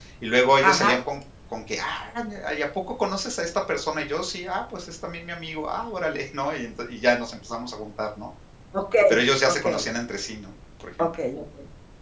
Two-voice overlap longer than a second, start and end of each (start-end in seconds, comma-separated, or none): none